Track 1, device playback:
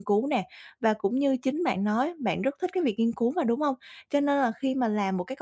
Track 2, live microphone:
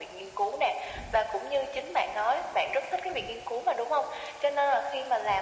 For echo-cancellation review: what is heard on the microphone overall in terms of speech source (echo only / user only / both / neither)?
echo only